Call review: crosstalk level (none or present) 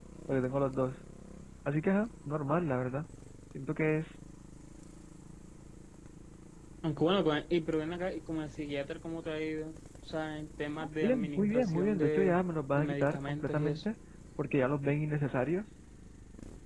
present